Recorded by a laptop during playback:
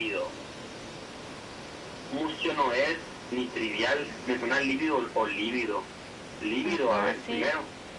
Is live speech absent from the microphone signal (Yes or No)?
No